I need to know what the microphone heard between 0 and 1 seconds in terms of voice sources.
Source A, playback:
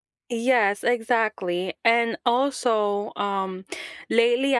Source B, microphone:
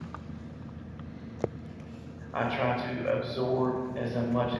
neither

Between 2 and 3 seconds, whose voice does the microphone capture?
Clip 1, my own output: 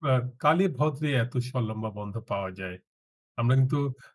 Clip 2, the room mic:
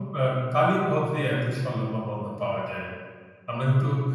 echo only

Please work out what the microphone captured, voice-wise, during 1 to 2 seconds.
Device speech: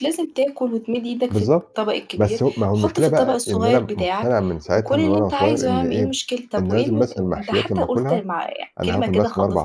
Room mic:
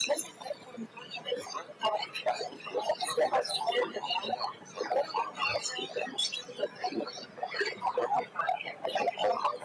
echo only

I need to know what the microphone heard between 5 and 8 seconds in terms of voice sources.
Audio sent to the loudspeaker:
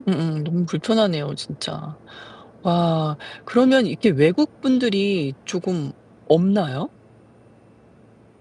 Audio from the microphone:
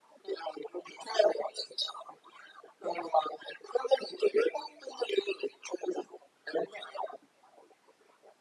echo only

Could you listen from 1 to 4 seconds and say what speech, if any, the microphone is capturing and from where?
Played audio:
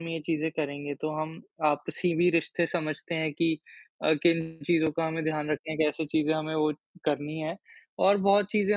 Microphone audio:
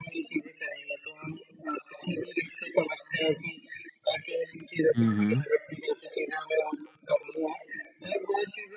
echo only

